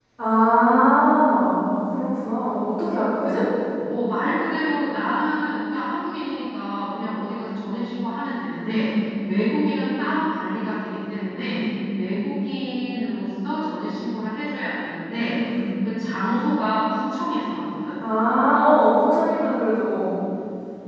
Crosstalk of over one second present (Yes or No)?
No